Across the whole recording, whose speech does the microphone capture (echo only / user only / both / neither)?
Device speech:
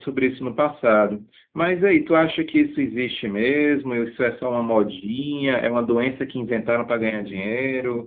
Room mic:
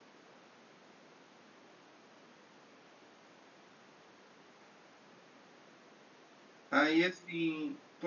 user only